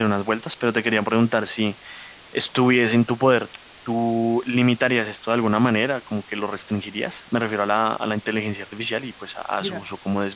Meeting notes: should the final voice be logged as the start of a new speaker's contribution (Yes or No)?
Yes